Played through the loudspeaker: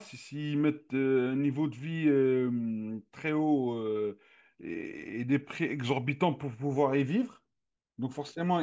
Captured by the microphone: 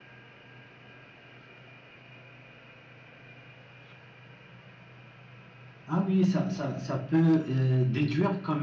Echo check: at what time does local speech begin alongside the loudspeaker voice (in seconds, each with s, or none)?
5.8 s